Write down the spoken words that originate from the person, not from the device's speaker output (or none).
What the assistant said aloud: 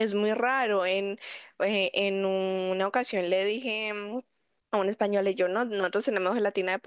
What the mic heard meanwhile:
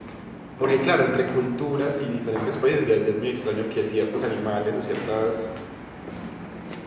Porque claro, entre culturas y diferentes países ya, ya es muy extraño que ciertos animales o ciertos